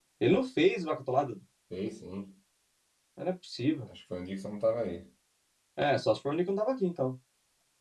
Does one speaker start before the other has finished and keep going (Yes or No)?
No